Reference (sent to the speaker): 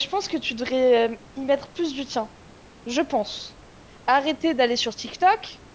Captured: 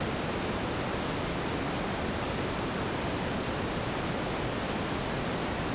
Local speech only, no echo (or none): none